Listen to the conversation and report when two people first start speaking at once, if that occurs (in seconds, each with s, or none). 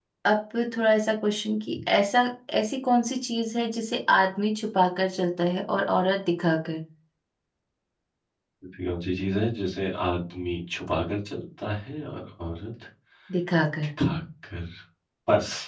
none